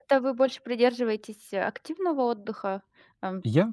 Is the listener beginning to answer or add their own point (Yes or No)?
Yes